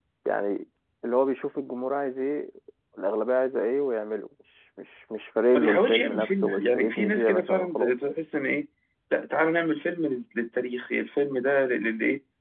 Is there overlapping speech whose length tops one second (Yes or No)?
Yes